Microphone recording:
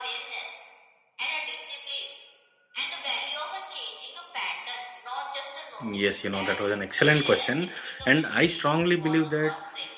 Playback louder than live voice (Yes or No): No